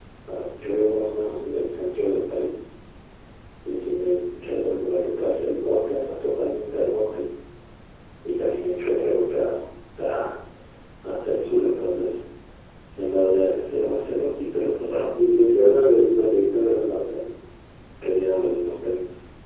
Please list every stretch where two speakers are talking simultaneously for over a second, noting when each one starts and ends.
none

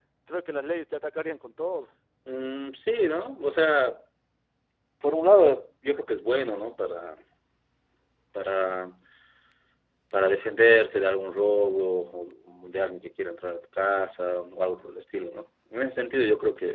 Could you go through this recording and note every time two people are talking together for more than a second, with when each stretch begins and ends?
none

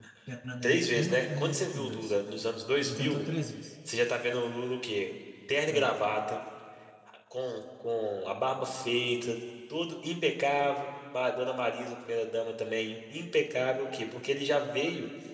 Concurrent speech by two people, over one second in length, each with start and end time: 0.6-2.1

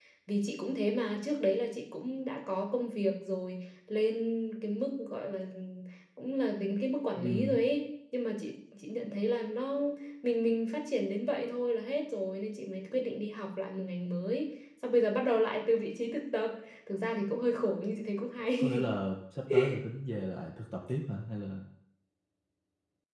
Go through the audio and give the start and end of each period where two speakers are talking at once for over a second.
none

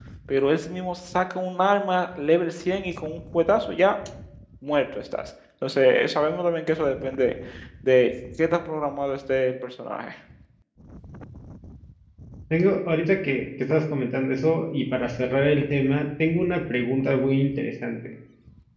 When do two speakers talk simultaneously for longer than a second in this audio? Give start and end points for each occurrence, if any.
none

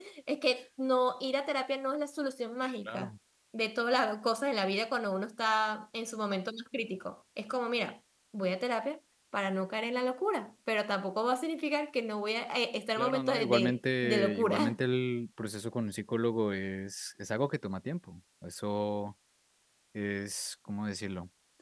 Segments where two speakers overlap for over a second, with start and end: 13.0-14.8

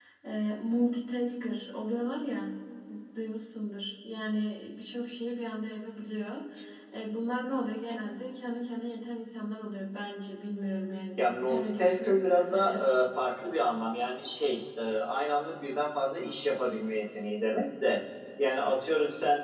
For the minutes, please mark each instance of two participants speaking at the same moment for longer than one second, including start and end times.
11.2-12.9

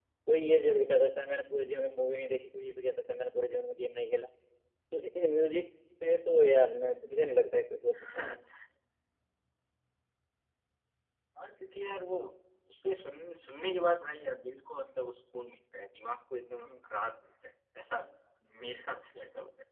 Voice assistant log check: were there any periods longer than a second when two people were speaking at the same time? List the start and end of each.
none

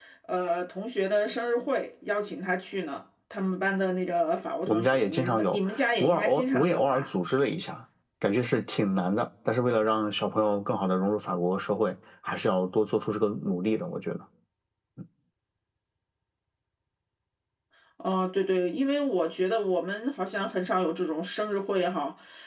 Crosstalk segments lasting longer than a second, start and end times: 4.7-7.0

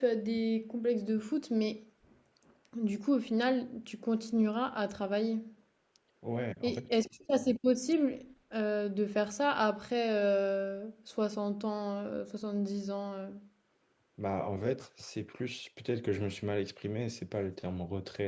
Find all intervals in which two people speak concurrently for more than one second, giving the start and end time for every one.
none

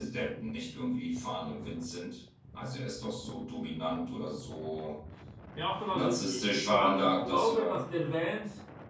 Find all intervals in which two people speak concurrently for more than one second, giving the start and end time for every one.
5.9-7.8

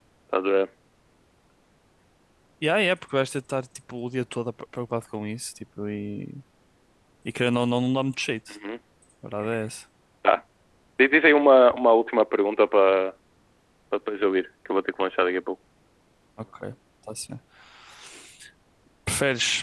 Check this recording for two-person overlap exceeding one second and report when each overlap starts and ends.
none

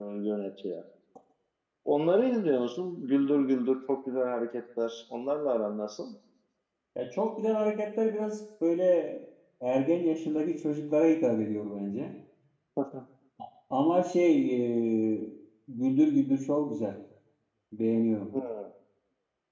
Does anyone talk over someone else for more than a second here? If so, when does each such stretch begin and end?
none

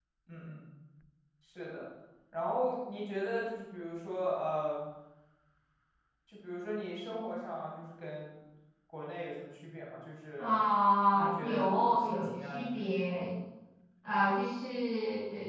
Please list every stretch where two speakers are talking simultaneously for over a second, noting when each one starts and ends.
11.1-12.9

